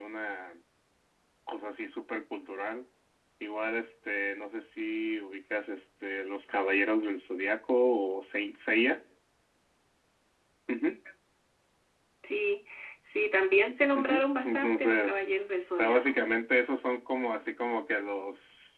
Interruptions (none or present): present